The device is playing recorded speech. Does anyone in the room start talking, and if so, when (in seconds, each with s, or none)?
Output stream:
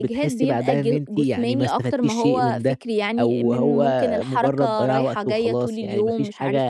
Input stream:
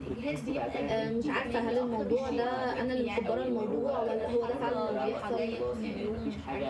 0.9 s